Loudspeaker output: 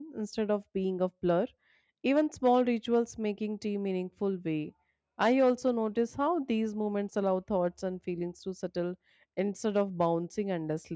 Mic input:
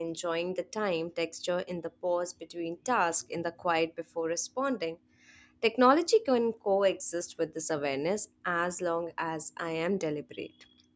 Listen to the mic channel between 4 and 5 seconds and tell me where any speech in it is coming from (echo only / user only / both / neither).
user only